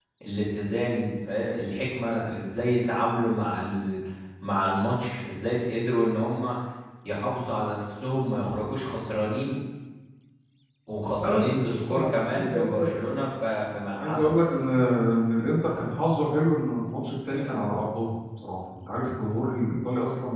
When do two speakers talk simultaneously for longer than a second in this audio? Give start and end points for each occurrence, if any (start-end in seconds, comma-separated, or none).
11.2-12.9